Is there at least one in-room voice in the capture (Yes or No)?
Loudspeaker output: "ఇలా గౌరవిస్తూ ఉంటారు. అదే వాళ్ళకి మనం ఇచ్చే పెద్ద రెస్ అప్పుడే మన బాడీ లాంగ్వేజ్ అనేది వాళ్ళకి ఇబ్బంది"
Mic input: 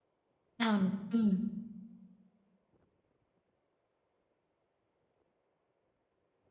Yes